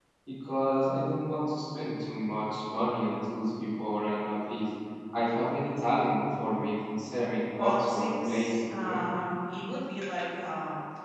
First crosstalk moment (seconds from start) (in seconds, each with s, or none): 7.5 s